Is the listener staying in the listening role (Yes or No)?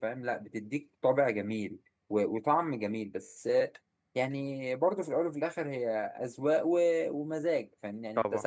Yes